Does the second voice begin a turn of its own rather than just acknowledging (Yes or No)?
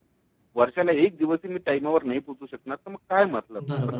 Yes